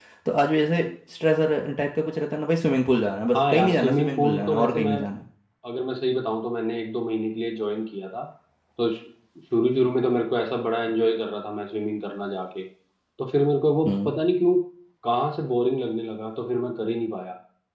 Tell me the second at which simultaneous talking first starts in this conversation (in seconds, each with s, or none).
3.3 s